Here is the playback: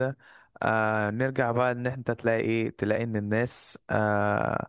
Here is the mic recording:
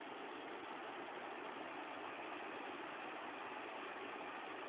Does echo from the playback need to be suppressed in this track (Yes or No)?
No